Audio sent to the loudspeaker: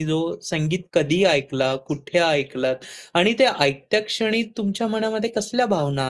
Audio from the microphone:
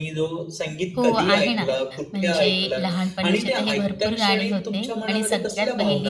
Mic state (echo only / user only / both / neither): both